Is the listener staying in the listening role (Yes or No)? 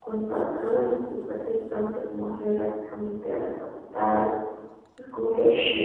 No